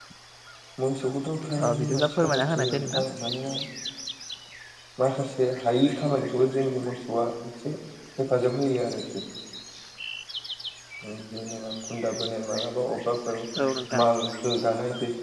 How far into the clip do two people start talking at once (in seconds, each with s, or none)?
1.6 s